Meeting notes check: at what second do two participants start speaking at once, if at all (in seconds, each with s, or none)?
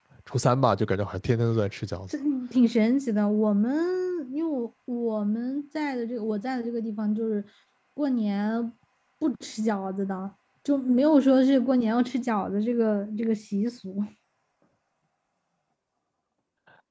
none